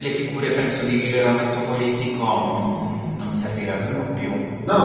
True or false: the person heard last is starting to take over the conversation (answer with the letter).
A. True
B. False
A